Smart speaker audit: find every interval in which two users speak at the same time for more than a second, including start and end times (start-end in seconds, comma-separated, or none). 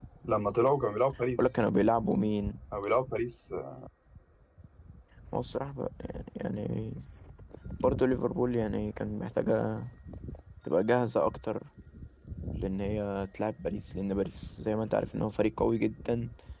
none